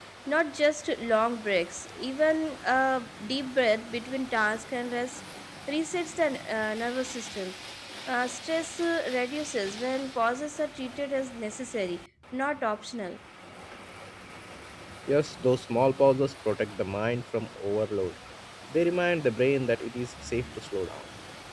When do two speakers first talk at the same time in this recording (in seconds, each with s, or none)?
none